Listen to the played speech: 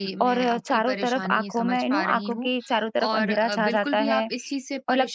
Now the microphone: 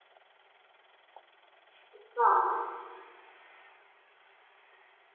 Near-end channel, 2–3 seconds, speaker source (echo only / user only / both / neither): user only